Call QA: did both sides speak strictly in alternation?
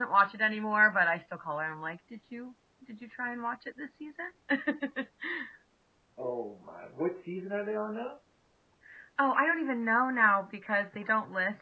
Yes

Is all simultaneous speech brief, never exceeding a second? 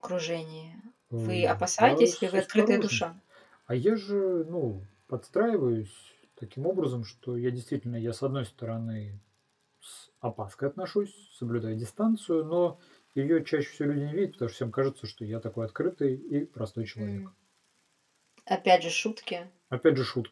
No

